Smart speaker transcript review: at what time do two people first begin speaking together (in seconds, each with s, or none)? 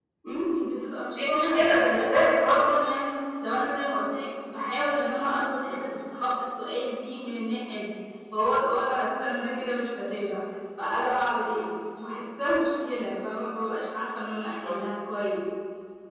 1.1 s